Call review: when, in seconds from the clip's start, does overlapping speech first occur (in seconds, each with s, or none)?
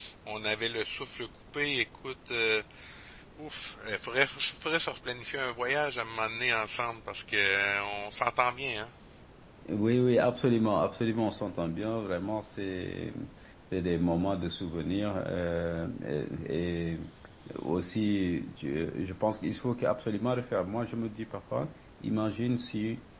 none